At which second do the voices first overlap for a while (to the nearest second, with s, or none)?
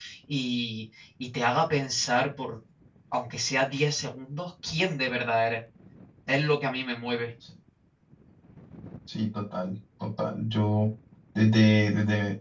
none